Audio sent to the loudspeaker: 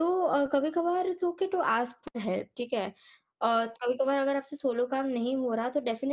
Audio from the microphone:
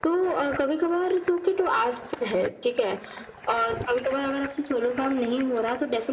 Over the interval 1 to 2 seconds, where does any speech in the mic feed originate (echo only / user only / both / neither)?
echo only